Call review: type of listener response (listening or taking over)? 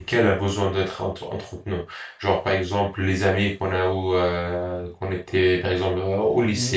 listening